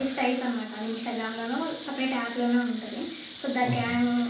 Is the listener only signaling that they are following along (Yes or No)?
Yes